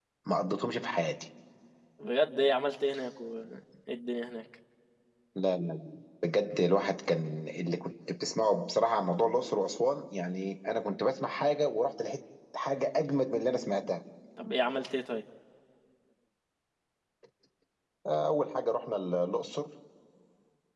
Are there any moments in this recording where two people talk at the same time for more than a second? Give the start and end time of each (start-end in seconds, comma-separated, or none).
none